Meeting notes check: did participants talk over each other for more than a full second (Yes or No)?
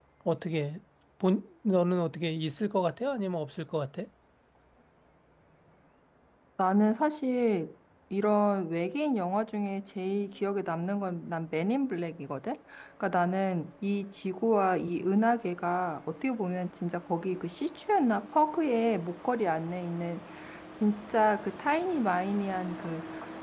No